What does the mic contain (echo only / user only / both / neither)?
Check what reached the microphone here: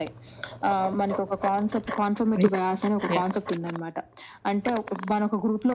both